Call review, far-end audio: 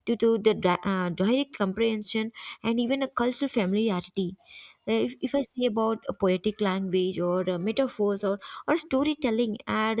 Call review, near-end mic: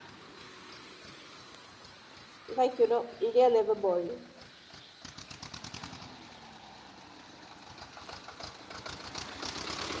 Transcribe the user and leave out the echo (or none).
Like, you know, they are never boring.